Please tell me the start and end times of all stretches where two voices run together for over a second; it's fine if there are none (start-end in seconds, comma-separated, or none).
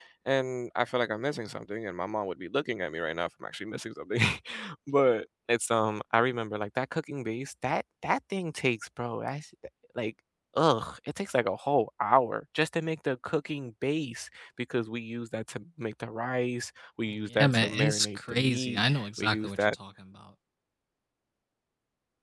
17.4-19.8